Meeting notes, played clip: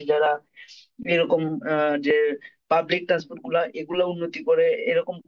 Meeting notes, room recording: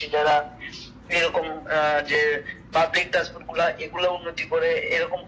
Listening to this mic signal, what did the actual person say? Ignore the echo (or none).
none